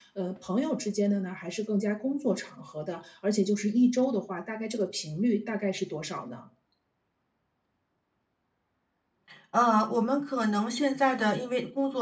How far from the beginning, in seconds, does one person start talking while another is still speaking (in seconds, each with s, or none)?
none